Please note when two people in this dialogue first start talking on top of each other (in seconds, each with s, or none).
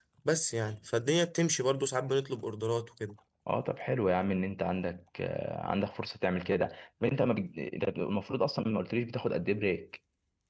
none